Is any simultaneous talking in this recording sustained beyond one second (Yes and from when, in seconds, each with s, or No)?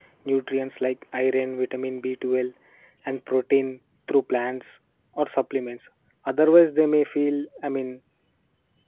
No